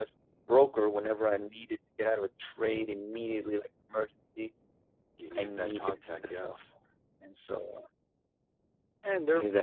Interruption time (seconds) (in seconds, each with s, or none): 5.4 s